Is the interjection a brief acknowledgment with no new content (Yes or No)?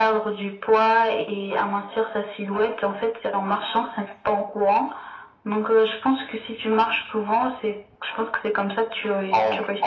No